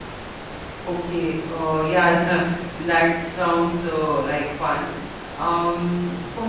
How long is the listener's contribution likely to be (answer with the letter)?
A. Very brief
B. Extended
A